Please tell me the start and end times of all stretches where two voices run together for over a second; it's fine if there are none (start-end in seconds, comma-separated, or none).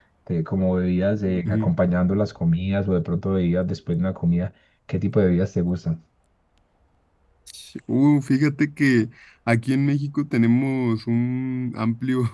none